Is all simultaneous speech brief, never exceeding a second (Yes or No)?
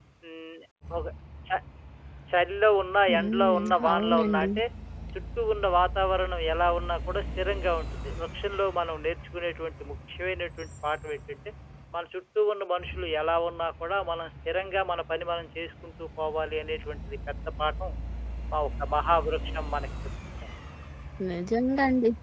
No